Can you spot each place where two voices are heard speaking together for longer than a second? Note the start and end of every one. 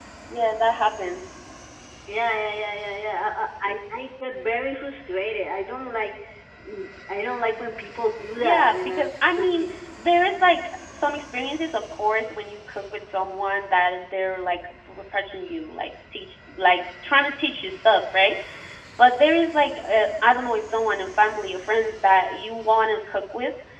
8.4-9.6

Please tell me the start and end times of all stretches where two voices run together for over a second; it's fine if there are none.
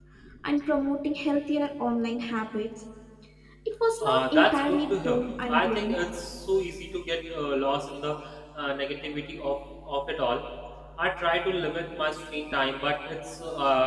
4.0-6.0

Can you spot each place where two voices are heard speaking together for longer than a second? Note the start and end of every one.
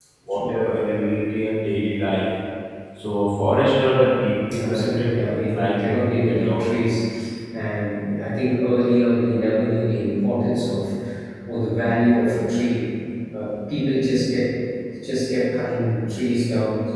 4.6-6.7

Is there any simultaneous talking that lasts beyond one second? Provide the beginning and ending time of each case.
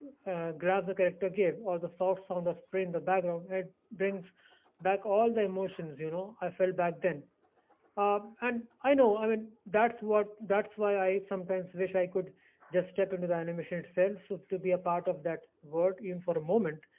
none

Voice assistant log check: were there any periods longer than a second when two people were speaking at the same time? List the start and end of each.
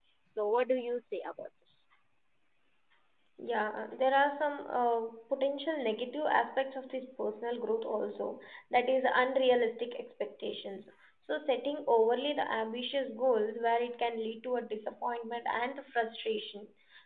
none

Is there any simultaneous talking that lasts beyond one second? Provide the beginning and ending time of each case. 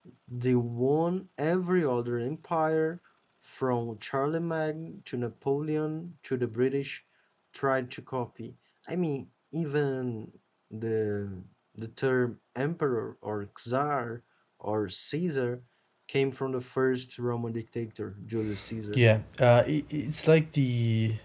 none

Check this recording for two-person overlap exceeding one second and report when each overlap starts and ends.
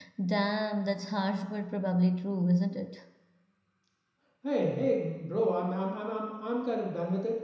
none

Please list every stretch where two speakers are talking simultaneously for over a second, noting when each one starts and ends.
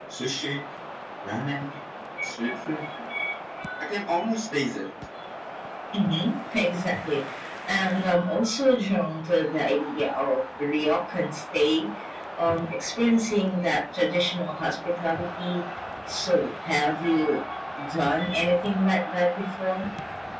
none

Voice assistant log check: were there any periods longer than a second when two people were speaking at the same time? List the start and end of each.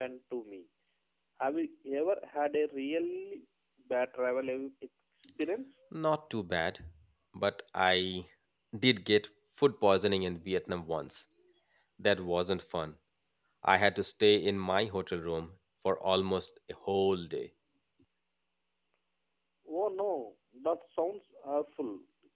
none

